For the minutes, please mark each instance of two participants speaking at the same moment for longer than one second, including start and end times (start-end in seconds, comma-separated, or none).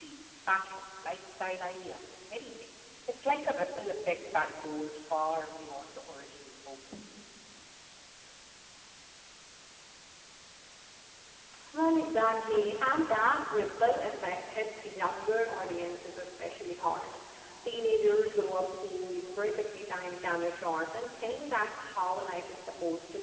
none